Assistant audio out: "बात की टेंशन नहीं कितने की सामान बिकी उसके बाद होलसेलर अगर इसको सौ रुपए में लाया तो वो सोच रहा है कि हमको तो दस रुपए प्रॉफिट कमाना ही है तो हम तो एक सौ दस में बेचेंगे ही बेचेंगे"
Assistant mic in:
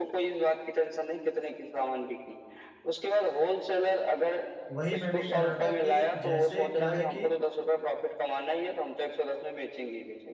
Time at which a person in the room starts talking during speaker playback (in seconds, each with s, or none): 4.7 s